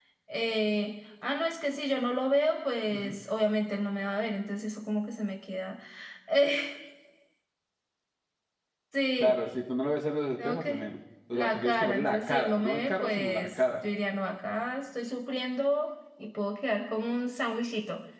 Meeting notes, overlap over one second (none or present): present